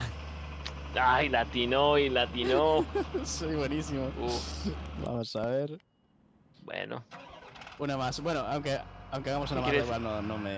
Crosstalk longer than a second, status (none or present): none